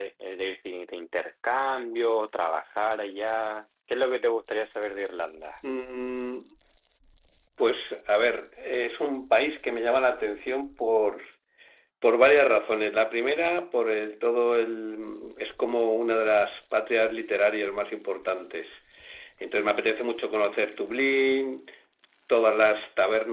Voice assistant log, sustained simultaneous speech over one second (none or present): none